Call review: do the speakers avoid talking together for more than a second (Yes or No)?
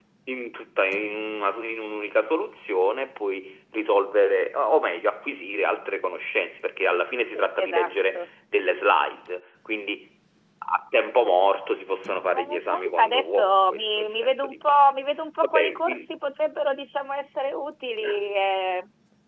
No